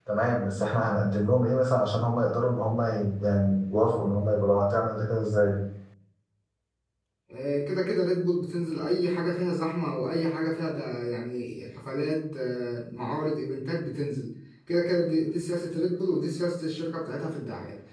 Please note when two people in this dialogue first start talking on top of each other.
none

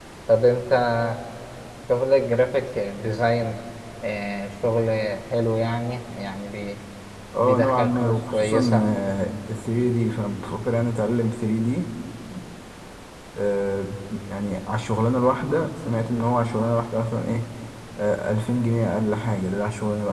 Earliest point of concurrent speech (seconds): 7 s

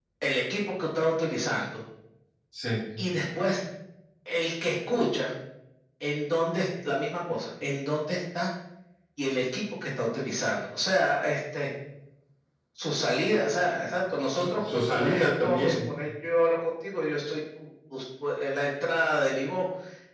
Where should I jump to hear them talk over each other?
14 s

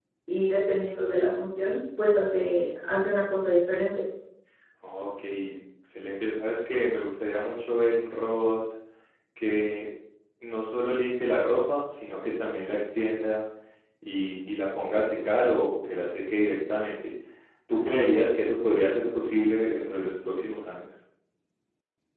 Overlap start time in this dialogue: none

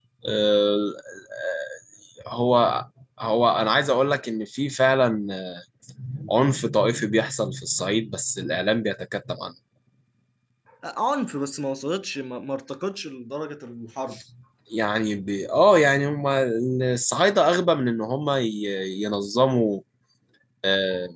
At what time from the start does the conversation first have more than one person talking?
none

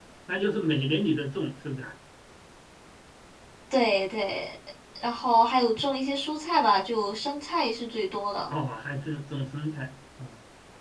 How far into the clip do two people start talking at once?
none

